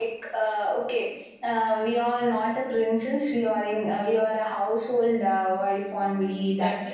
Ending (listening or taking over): taking over